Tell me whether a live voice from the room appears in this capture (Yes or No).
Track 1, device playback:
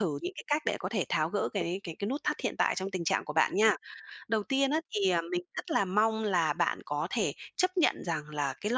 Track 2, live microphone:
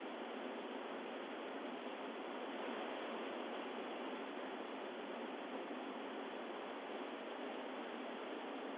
No